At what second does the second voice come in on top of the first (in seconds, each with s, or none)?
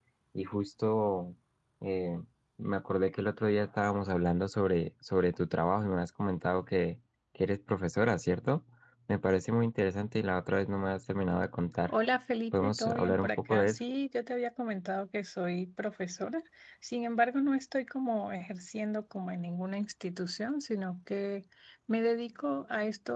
12.5 s